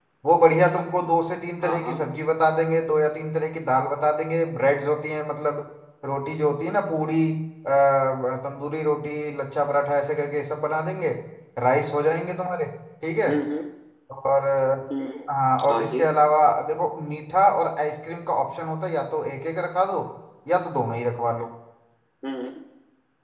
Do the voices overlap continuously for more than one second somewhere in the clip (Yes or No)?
No